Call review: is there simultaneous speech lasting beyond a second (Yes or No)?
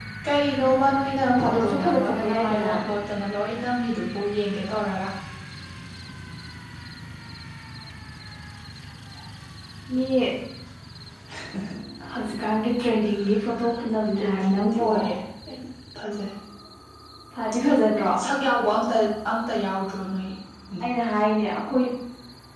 Yes